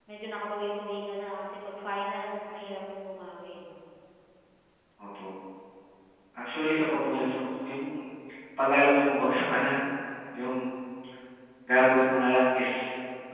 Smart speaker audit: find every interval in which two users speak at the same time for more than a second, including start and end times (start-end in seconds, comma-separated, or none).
none